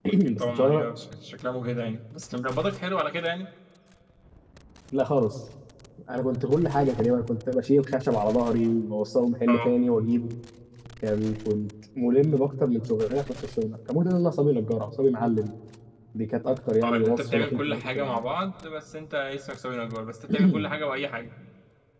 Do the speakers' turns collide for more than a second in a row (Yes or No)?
Yes